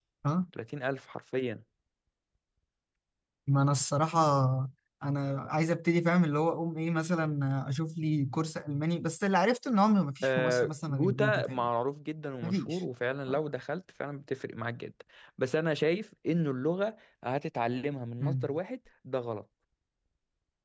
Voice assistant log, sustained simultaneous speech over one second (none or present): present